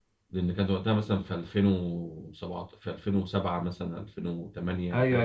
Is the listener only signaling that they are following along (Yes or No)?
No